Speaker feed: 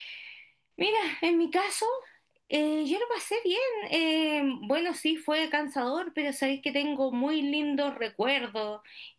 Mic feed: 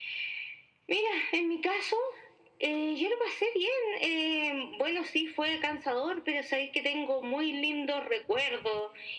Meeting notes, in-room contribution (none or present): none